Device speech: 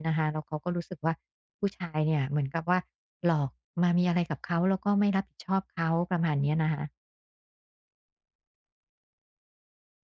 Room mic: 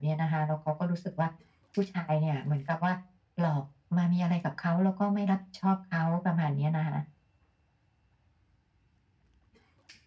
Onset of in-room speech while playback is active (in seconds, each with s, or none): none